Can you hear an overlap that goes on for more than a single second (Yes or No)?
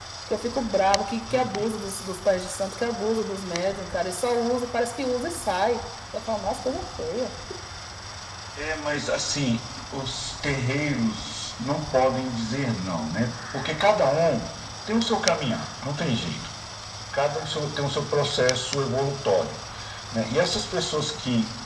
No